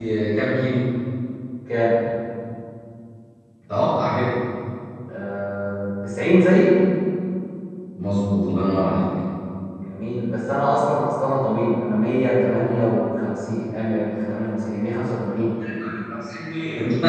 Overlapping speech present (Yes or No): No